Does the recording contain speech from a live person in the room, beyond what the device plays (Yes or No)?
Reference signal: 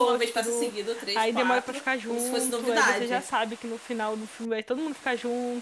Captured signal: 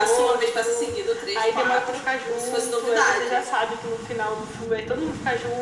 No